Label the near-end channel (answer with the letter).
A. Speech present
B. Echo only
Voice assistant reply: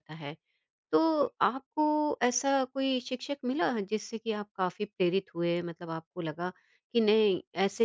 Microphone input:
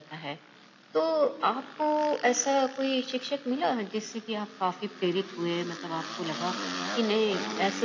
B